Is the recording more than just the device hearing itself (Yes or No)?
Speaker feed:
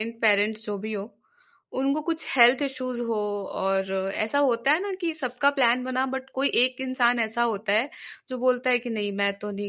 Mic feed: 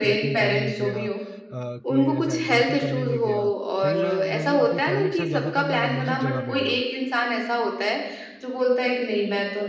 Yes